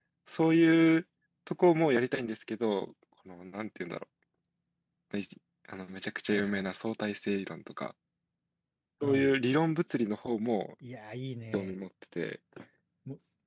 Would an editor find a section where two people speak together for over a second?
No

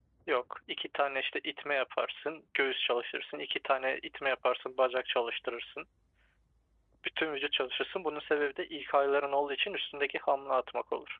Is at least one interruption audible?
No

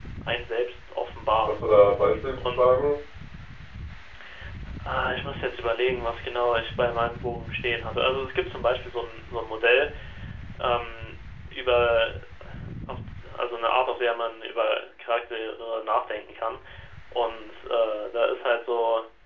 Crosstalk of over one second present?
No

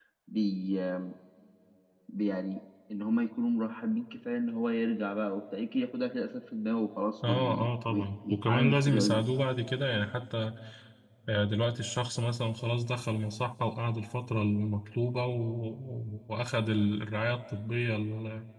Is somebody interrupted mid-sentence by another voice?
Yes, from 7.2 s

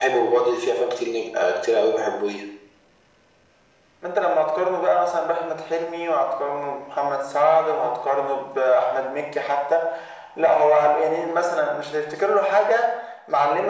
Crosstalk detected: No

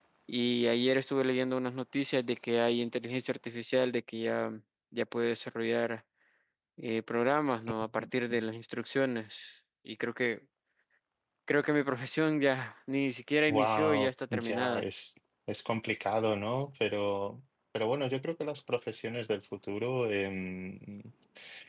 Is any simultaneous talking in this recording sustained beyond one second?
Yes, from 13.5 s

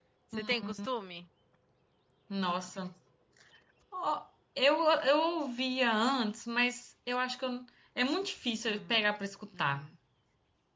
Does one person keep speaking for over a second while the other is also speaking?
No

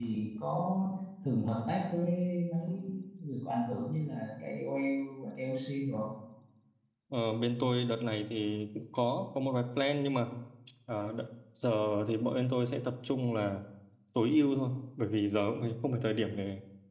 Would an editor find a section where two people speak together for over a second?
No

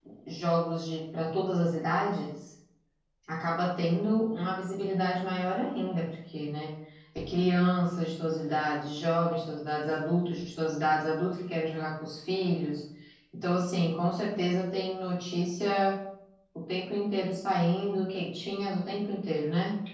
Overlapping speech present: No

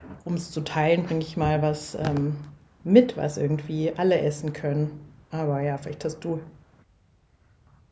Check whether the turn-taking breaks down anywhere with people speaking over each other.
No

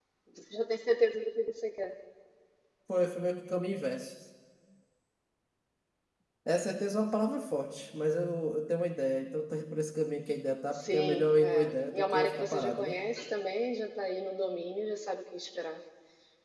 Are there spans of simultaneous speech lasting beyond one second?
Yes, from 10.7 s

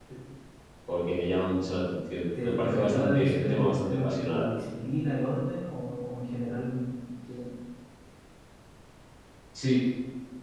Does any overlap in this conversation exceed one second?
Yes, from 2.4 s

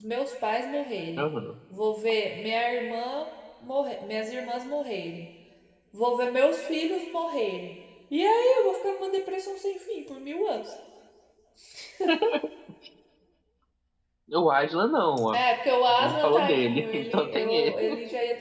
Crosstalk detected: Yes, from 15.9 s

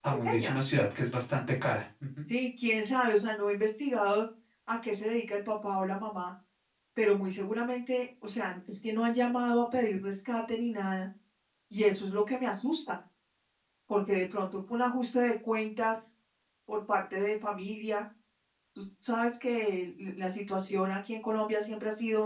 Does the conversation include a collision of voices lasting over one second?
No

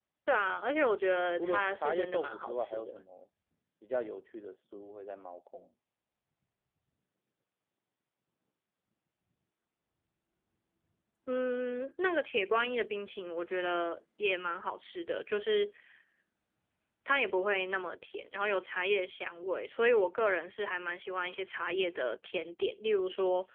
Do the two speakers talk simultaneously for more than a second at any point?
Yes, from 1.4 s

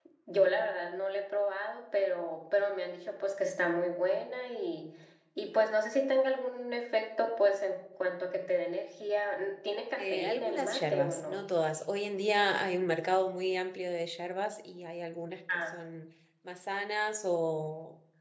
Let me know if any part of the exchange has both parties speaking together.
Yes, from 10.0 s

